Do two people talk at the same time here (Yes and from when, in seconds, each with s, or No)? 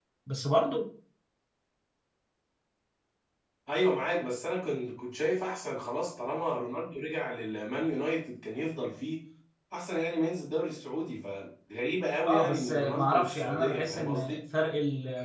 Yes, from 12.2 s